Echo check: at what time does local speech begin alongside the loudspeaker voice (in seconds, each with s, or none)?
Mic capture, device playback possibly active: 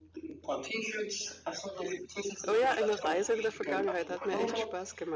2.5 s